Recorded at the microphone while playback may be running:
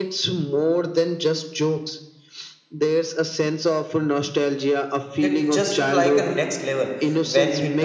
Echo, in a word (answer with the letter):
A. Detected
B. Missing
A